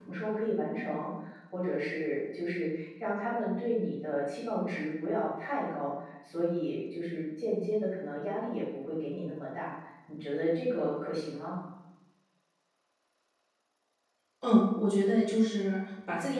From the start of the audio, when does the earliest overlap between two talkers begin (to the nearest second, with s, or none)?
none